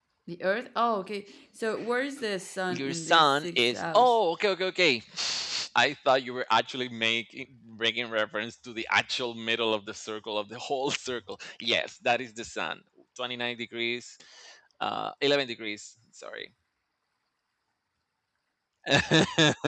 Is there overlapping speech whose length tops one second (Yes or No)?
Yes